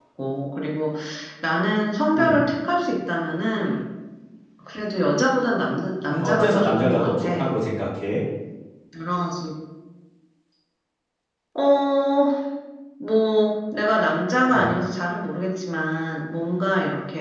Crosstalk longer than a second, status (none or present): present